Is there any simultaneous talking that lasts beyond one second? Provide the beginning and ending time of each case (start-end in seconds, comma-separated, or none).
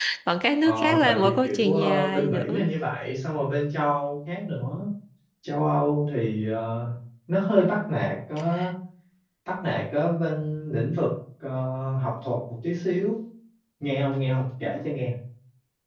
0.6-2.7